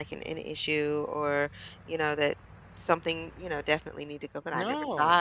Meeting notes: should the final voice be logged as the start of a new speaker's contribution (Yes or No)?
No